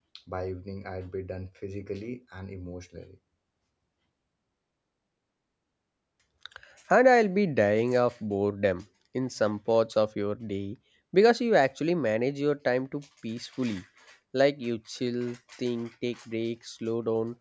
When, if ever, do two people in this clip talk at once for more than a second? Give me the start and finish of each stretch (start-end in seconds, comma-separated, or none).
none